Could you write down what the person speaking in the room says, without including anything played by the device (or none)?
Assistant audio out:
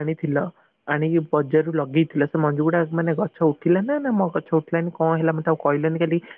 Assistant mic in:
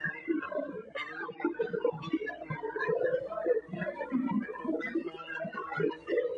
none